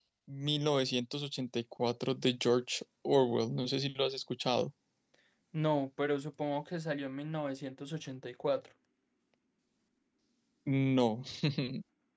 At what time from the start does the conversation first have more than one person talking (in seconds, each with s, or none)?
none